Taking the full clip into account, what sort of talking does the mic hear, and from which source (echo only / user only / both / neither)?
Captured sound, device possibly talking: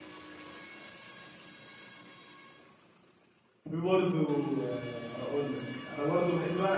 user only